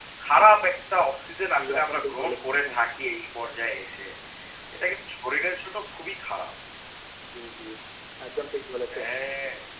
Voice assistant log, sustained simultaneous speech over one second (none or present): present